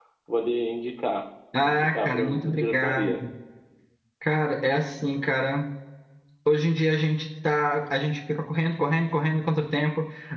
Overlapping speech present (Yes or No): Yes